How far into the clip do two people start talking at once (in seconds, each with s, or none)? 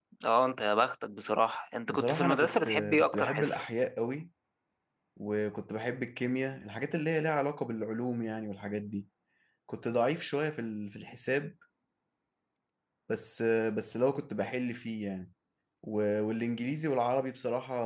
1.9 s